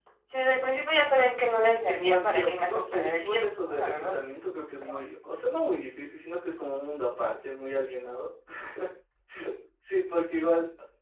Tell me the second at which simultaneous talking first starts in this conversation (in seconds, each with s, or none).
1.4 s